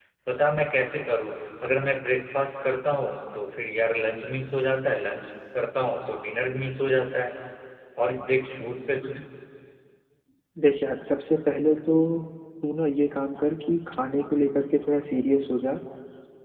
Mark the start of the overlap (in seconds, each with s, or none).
none